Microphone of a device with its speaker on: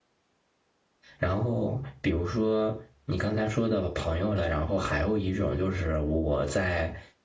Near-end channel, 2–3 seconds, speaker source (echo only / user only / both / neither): user only